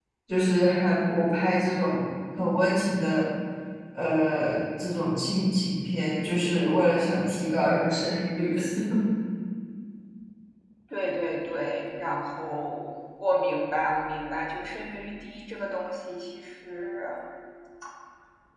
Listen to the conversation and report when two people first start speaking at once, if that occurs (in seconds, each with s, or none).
none